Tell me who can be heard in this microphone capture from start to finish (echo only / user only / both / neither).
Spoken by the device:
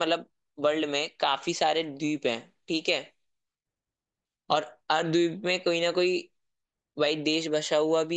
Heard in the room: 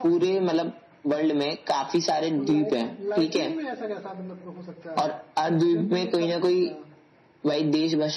both